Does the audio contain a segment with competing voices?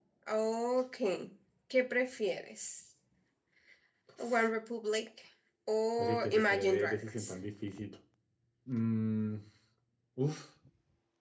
Yes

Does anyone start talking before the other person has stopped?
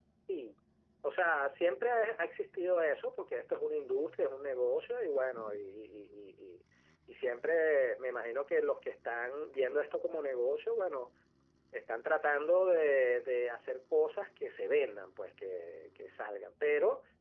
No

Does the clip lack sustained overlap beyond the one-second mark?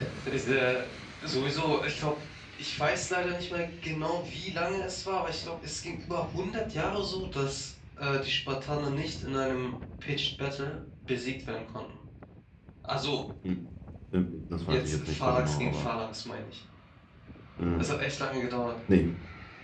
No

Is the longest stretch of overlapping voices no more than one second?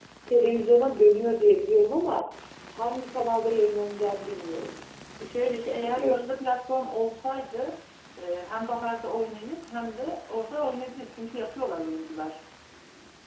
Yes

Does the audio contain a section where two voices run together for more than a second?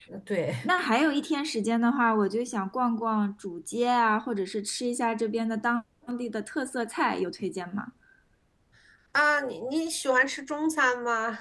No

